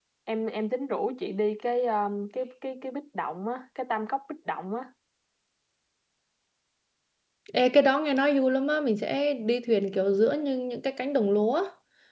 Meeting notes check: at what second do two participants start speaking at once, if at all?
none

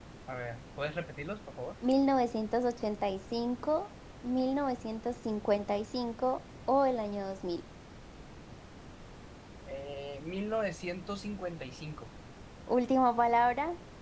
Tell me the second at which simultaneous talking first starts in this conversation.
none

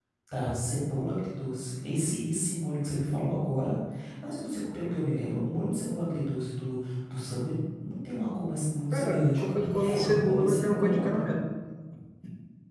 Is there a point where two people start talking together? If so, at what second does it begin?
8.9 s

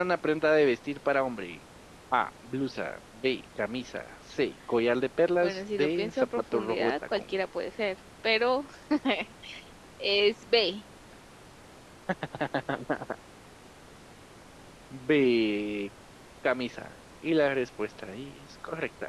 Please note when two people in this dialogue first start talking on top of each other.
5.4 s

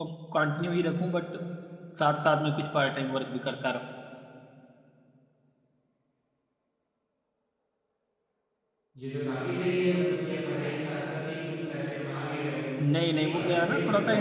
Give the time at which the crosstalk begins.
12.8 s

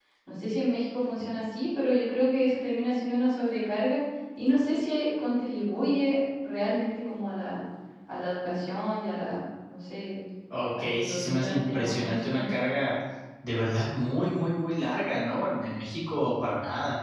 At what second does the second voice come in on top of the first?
10.8 s

